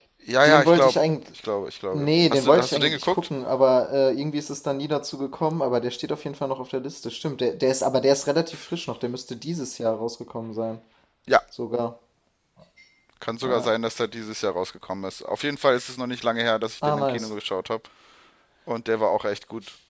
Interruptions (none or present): present